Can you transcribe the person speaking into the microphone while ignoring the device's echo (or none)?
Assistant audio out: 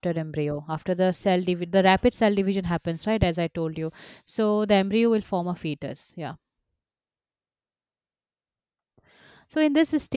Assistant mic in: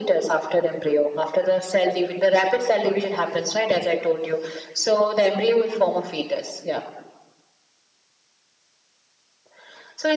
none